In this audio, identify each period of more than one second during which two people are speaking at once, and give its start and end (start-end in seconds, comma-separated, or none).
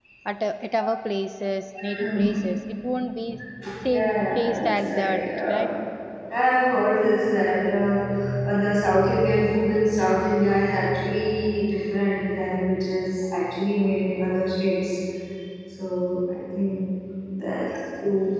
3.9-5.7